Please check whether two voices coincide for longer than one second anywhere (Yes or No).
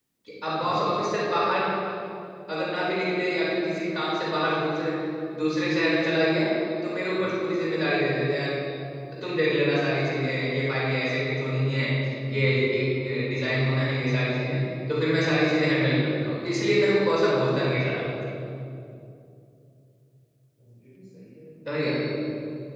No